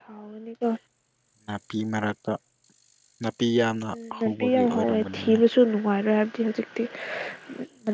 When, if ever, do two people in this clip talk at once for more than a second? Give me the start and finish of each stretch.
3.9-5.3

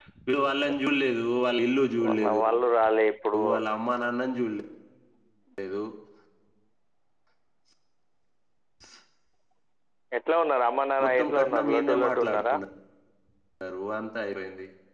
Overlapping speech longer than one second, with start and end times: 11.0-12.6

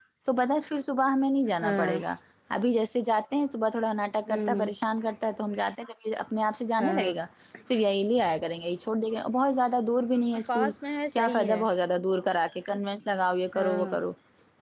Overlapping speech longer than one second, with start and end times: none

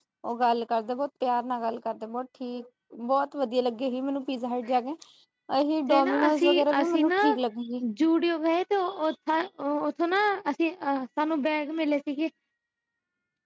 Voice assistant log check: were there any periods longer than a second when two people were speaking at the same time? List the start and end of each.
5.9-7.2

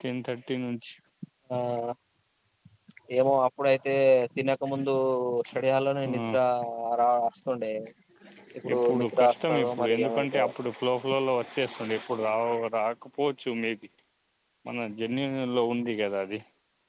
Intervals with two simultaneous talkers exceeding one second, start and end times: 8.7-10.5

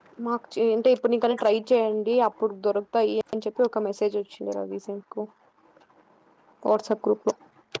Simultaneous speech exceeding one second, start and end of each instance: none

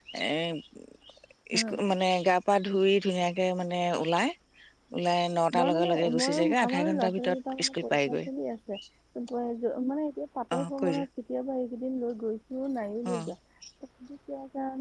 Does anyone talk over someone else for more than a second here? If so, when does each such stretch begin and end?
5.6-8.2

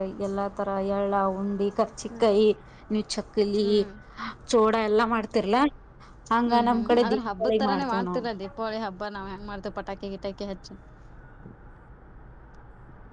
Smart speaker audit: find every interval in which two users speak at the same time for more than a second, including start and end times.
6.5-8.2

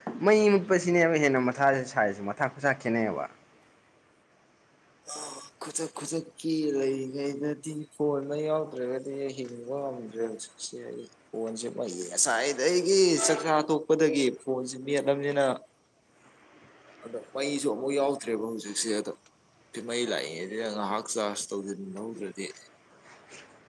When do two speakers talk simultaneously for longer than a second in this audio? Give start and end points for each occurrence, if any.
none

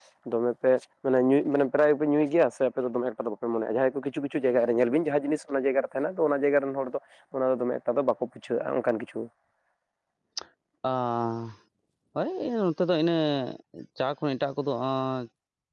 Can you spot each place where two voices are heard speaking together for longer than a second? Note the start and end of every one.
none

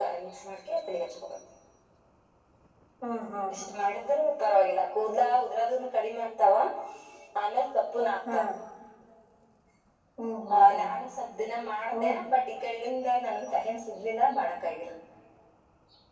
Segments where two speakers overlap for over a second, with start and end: none

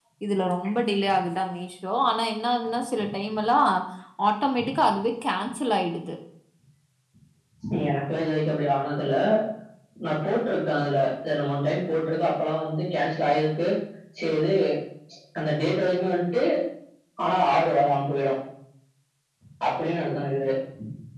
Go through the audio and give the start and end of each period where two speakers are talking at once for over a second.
none

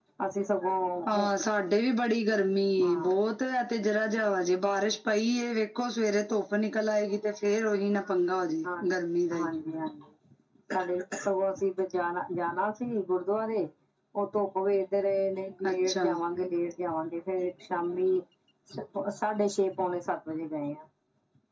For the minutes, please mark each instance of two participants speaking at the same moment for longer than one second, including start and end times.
none

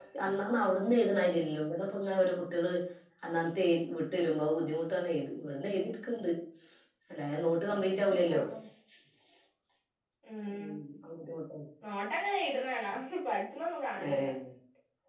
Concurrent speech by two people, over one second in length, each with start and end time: none

